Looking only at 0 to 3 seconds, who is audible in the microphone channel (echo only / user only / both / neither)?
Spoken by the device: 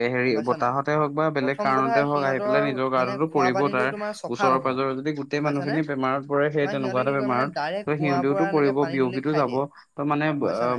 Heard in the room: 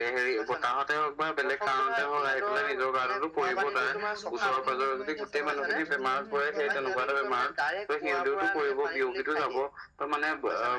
echo only